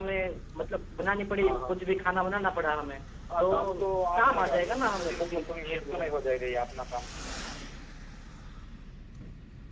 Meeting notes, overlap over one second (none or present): present